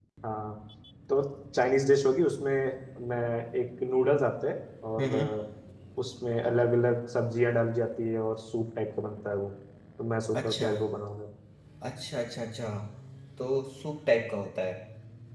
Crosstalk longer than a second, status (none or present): none